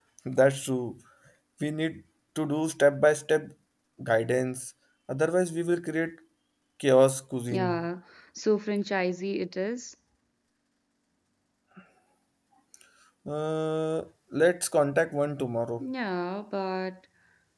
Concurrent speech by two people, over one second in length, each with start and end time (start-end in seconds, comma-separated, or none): none